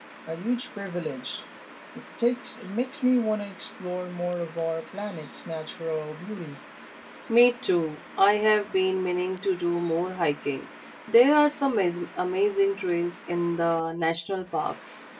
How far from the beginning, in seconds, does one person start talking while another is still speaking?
none

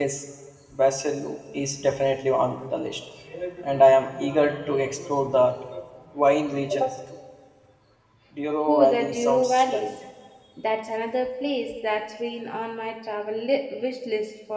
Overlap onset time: 8.7 s

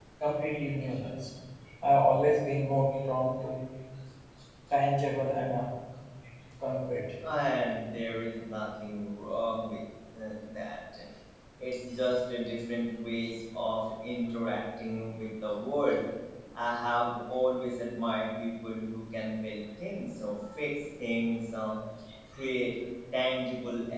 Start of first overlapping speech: none

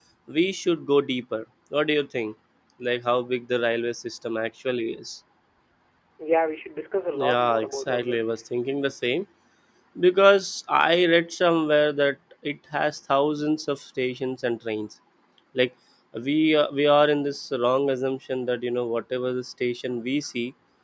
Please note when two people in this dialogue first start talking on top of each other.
7.1 s

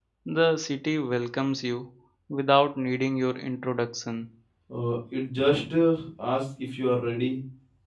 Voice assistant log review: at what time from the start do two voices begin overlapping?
none

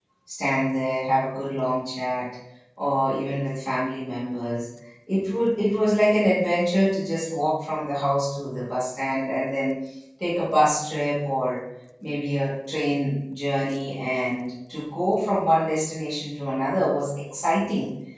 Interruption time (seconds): none

